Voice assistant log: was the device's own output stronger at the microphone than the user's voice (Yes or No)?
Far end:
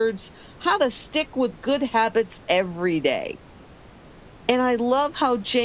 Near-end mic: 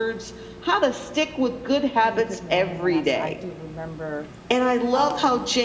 Yes